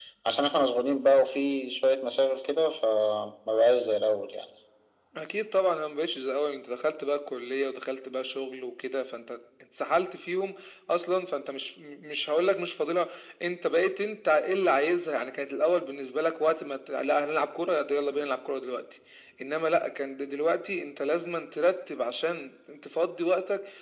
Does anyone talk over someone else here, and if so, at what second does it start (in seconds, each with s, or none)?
none